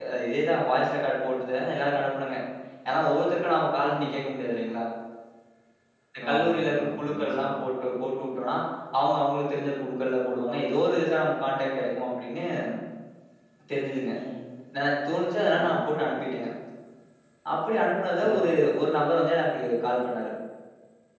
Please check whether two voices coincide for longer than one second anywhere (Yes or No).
Yes